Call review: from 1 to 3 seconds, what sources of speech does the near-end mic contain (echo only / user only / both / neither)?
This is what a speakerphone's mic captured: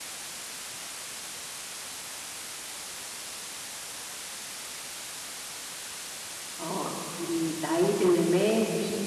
neither